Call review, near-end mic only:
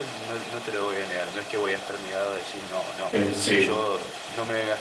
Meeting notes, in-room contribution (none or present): present